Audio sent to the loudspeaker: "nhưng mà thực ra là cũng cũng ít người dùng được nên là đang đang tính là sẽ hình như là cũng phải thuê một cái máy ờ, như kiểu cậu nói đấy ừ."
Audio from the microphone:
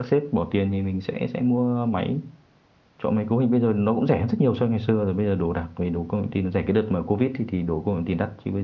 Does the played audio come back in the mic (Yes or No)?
No